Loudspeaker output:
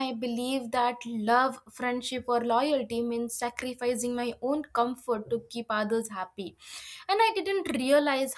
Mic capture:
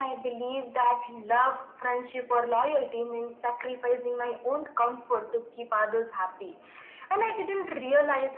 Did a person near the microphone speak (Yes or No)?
No